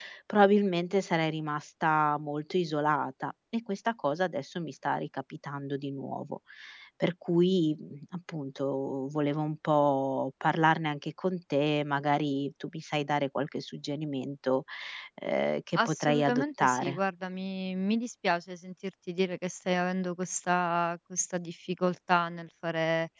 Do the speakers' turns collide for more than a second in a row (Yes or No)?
Yes